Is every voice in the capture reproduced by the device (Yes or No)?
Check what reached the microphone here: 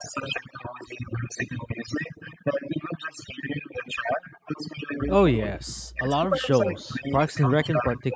No